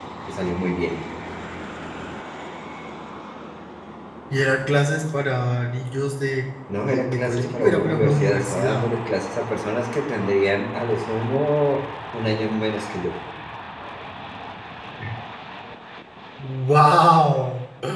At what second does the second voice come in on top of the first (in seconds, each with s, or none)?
6.9 s